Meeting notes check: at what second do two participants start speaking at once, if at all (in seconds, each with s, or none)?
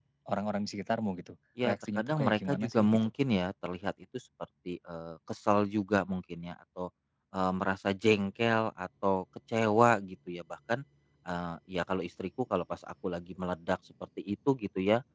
1.6 s